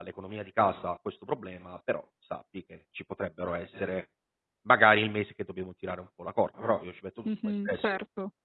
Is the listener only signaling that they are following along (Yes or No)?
No